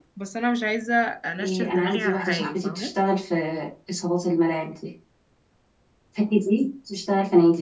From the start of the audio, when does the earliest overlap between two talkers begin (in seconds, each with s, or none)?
1.4 s